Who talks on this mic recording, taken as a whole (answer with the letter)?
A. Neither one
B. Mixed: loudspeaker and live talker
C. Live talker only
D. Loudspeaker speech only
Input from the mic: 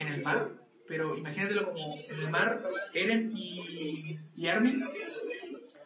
B